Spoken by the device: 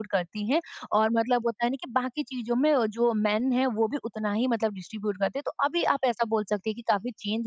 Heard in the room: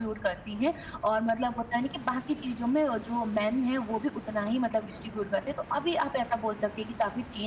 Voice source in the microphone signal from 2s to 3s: echo only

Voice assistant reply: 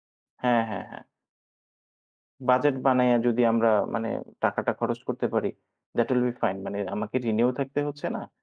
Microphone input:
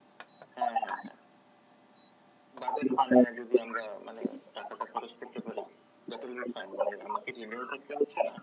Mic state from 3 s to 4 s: echo only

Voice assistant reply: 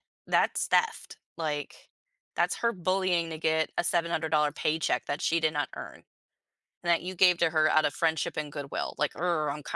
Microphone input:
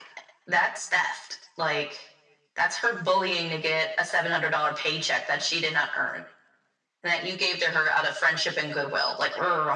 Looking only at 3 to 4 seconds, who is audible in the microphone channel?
echo only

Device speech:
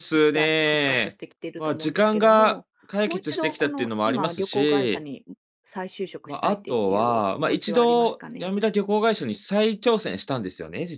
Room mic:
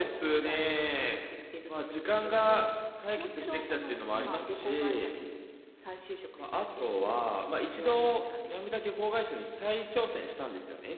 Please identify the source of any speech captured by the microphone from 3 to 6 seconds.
echo only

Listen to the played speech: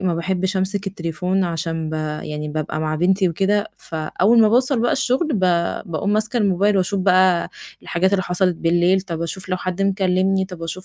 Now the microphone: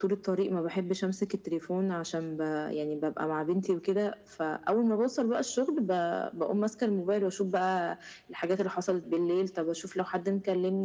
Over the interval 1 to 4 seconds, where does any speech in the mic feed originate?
echo only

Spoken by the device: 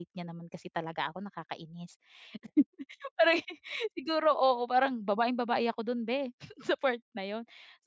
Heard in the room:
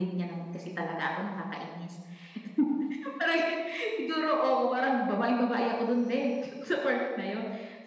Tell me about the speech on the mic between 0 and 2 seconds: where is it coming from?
echo only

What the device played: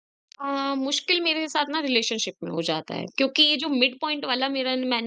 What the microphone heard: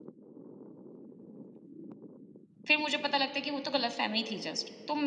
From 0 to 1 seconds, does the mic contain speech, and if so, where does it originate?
neither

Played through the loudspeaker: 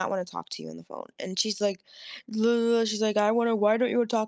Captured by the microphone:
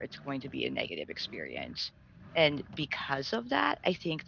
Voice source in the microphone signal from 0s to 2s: user only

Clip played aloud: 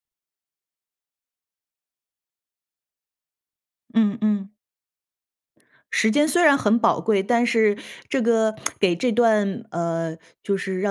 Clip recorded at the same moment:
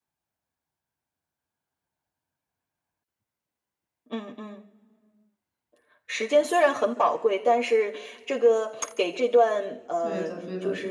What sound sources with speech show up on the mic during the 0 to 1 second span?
neither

